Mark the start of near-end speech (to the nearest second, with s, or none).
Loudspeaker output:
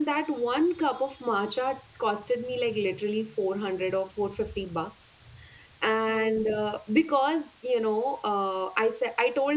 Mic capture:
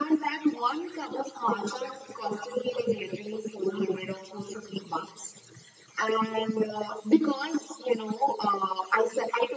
none